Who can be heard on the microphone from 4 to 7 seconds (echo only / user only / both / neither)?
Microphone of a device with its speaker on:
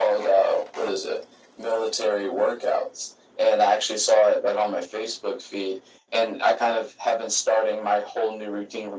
echo only